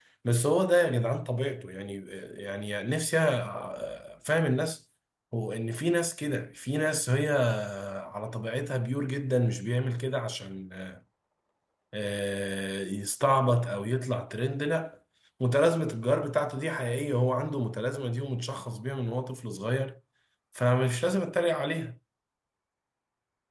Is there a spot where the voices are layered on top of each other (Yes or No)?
No